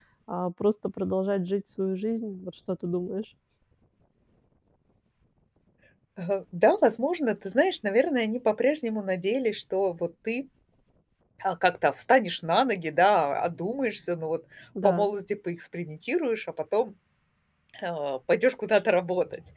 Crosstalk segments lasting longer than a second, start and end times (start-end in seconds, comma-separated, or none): none